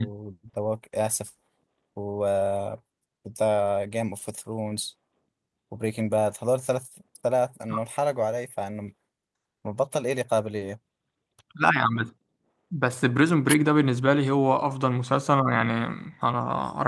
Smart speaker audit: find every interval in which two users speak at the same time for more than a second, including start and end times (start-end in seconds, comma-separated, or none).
none